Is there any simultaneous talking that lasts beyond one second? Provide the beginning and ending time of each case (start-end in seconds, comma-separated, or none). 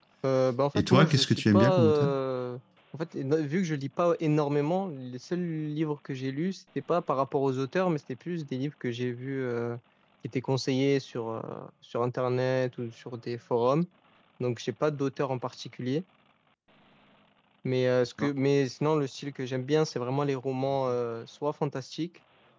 0.8-2.1